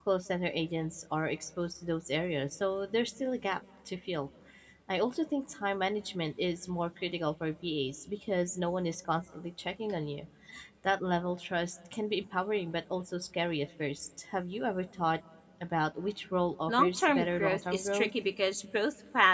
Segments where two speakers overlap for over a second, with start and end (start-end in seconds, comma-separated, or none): 16.7-18.1